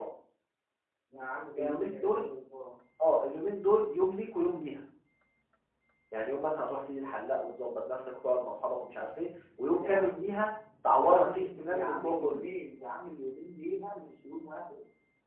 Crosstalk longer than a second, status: present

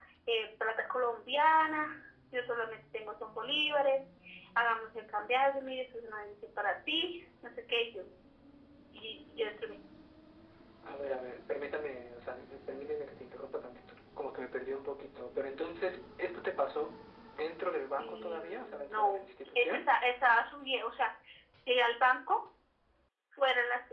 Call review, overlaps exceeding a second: present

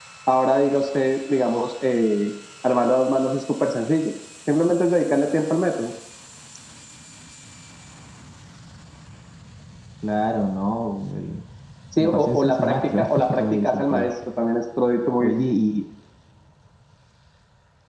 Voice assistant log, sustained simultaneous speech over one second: present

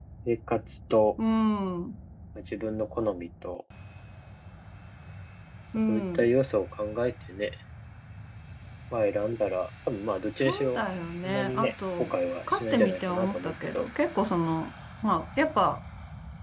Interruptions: present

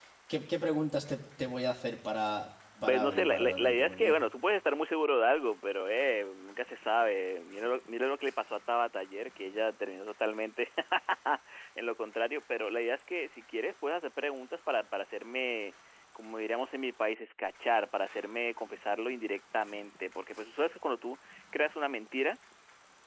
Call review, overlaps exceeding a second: present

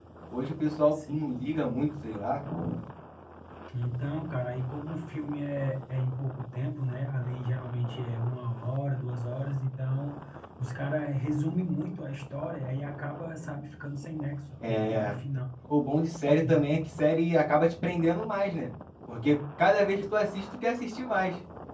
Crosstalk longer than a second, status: none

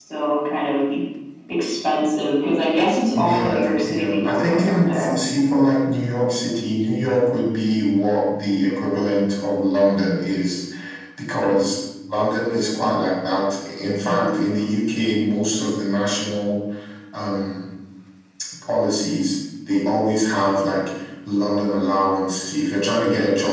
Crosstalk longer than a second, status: present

